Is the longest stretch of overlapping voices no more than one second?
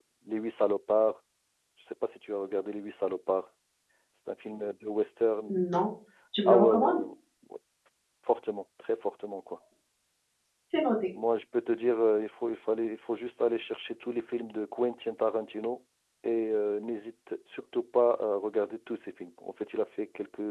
Yes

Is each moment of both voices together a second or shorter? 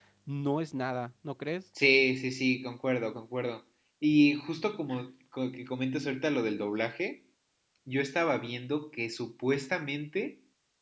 Yes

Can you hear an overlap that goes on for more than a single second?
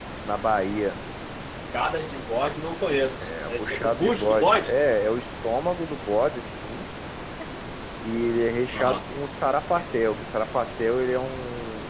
Yes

